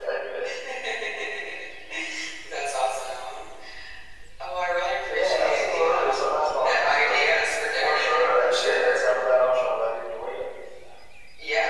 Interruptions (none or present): present